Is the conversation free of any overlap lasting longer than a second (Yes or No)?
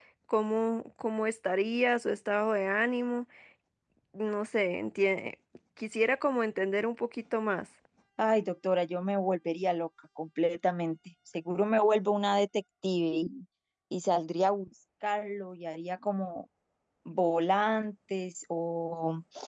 Yes